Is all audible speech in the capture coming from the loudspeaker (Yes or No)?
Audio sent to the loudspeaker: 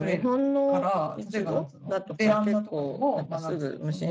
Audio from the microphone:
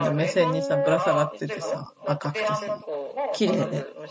No